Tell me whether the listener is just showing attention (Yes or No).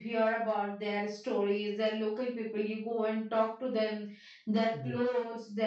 Yes